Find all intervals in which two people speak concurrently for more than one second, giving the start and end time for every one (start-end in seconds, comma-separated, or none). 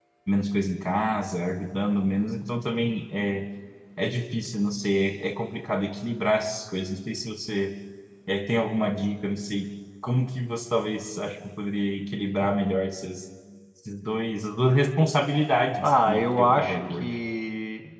15.8-17.2